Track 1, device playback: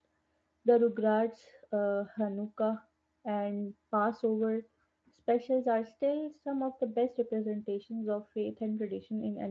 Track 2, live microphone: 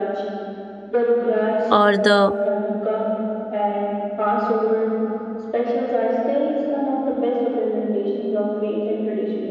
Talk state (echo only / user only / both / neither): both